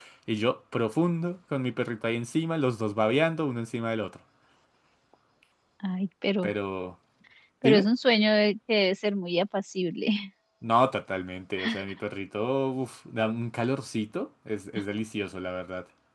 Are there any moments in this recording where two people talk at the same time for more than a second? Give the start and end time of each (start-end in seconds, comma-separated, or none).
none